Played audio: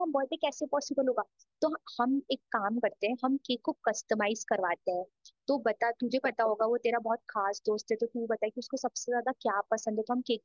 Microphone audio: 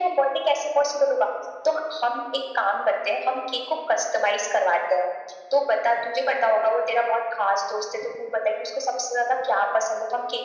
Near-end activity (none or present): none